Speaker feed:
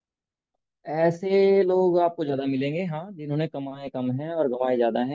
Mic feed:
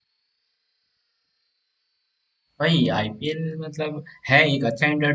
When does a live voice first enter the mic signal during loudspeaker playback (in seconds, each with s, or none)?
2.6 s